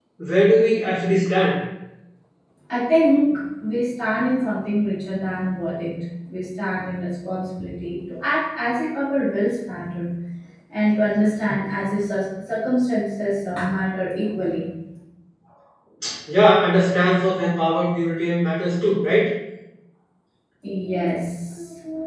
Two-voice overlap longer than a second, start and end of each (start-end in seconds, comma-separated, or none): none